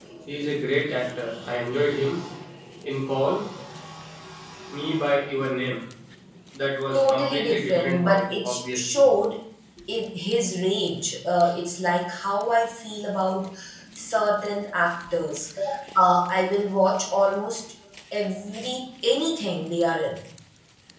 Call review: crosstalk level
present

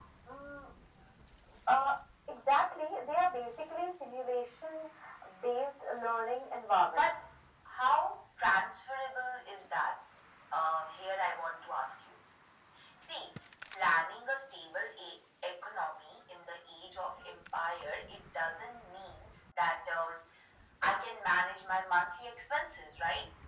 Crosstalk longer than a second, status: none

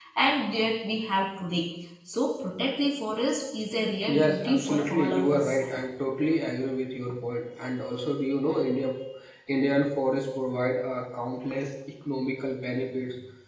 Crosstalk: present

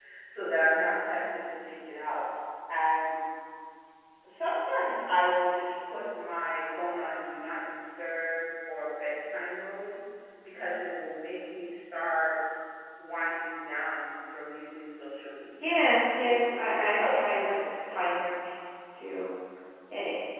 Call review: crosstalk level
present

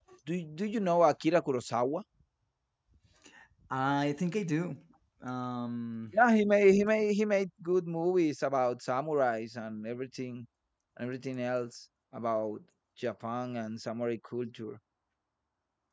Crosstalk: none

